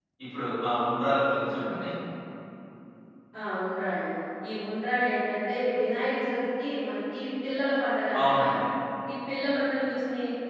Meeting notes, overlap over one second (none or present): none